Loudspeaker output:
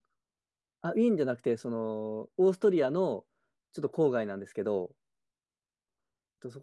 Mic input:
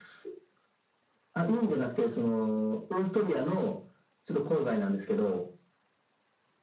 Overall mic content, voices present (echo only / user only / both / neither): echo only